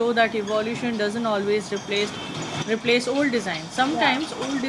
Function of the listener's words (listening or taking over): listening